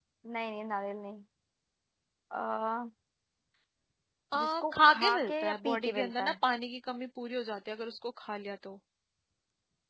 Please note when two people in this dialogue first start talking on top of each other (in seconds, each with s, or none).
4.4 s